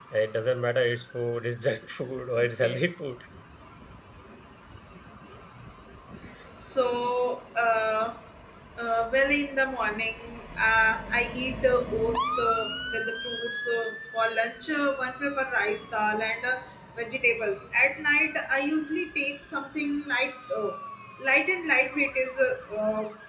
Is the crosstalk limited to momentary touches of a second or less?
Yes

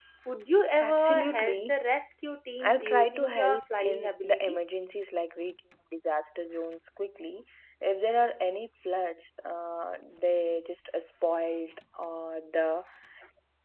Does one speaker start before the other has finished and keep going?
Yes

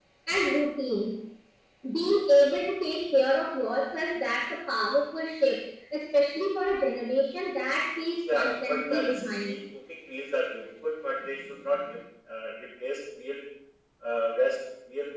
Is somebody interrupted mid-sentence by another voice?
Yes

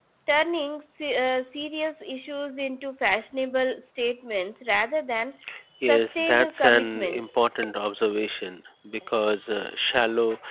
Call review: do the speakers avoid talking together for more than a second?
No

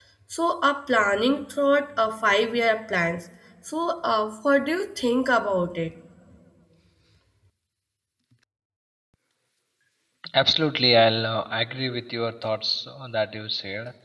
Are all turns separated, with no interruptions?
Yes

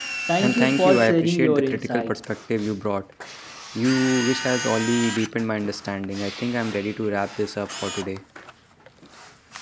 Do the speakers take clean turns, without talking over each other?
No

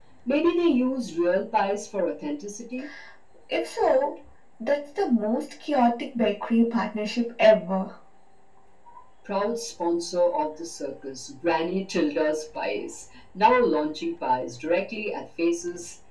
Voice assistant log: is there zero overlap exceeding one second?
Yes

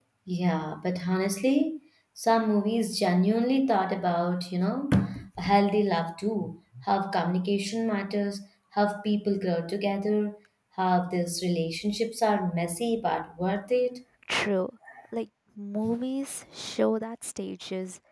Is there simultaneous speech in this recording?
No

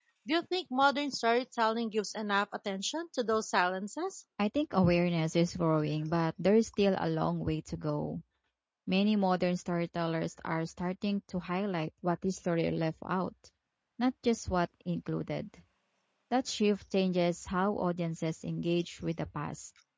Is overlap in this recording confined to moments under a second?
Yes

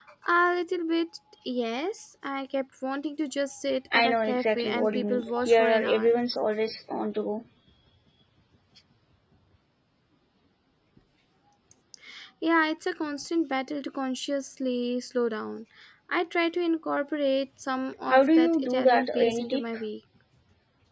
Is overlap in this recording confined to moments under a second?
No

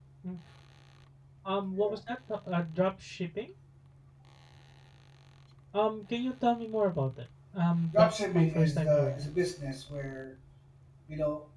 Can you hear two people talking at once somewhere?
Yes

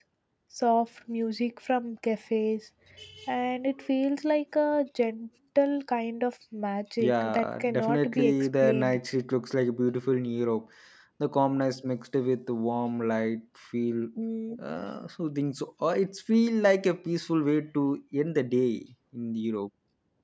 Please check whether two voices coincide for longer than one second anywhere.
Yes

